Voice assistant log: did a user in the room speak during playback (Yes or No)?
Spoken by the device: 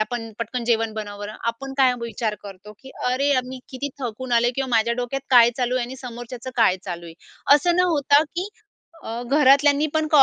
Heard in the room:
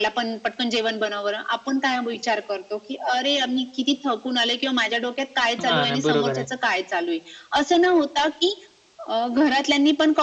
Yes